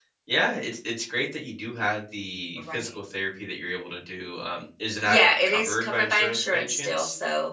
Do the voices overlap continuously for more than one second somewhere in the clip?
Yes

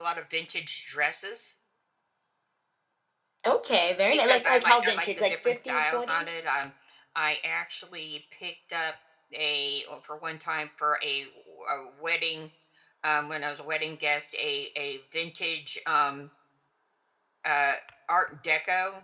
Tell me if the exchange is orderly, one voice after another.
No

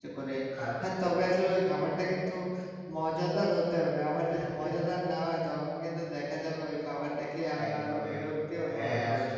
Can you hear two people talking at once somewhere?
Yes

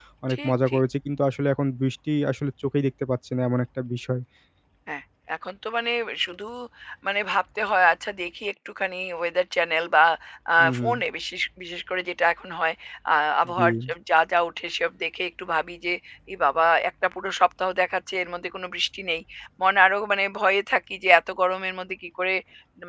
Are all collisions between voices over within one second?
Yes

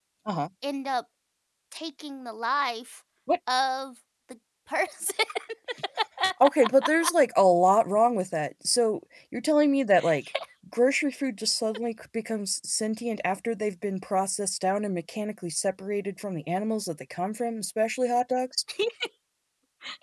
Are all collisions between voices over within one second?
Yes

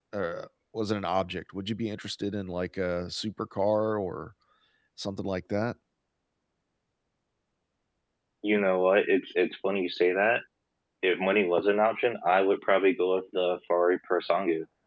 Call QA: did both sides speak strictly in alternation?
Yes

